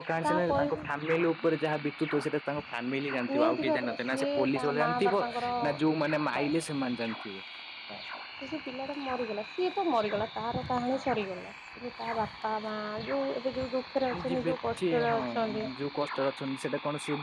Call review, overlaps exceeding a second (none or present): present